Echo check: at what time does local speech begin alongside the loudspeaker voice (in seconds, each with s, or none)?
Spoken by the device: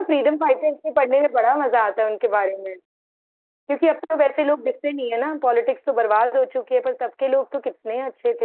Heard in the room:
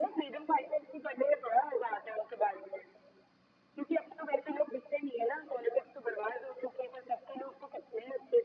none